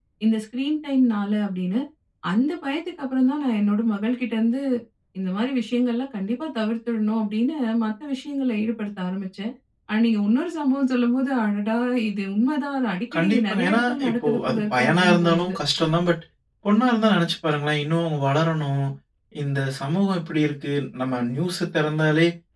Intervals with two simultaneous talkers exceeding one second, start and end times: 13.1-15.6

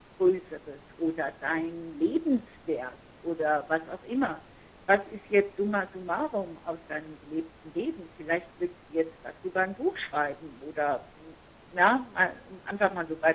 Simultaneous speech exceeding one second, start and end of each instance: none

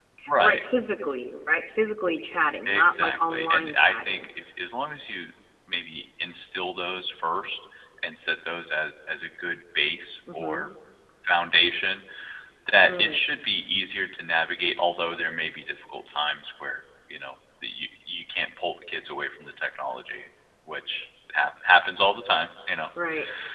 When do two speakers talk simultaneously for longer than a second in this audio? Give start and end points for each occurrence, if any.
2.7-4.3

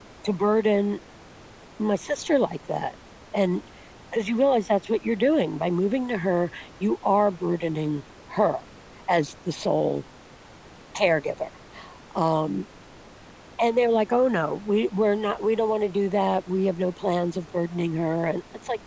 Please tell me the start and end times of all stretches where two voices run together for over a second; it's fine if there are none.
none

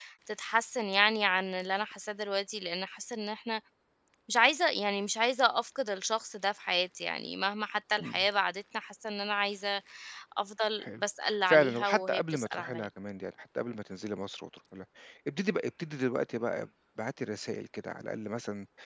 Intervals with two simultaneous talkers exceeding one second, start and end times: 11.5-12.9

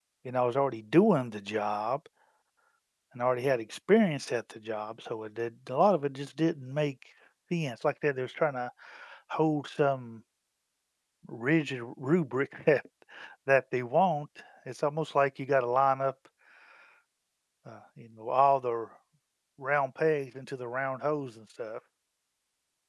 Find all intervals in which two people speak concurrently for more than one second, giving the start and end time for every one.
none

